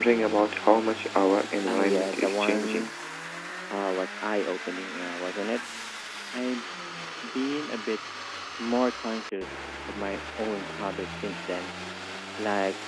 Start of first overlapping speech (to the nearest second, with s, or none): 2 s